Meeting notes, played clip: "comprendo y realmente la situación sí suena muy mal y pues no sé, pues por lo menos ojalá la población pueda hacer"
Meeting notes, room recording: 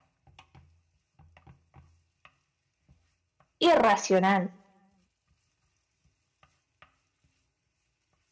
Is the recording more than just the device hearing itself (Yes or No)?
Yes